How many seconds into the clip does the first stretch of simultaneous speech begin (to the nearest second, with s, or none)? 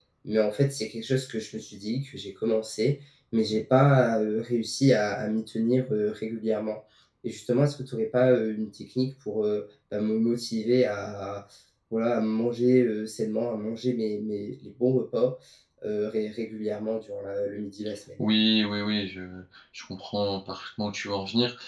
none